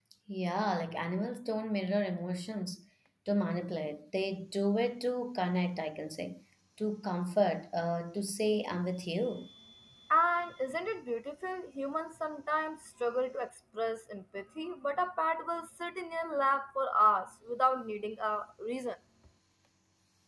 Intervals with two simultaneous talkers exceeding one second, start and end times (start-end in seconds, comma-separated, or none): none